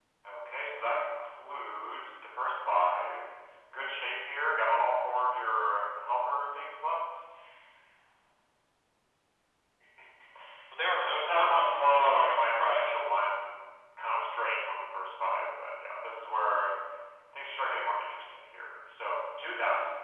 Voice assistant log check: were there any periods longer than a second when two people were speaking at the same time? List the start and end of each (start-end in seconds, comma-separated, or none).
10.9-13.0